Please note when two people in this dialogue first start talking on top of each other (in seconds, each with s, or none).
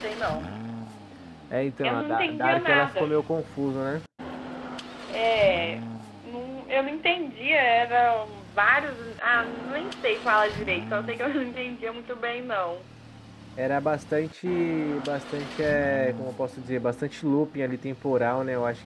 1.8 s